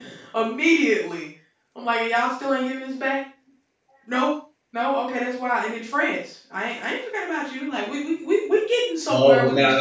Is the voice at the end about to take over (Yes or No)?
Yes